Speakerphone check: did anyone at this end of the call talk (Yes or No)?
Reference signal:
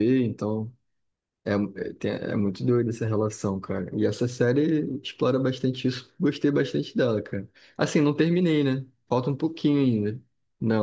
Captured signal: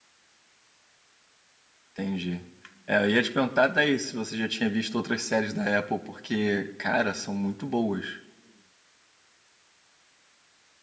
Yes